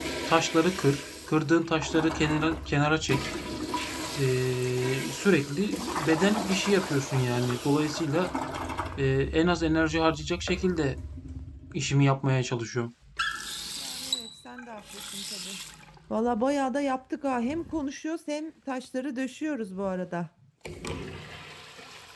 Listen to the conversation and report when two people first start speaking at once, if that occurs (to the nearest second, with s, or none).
none